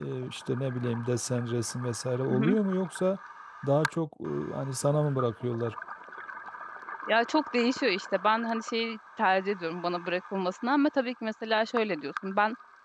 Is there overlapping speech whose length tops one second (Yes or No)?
No